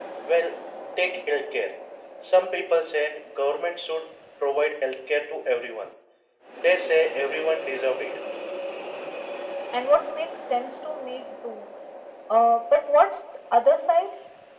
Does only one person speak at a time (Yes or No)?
Yes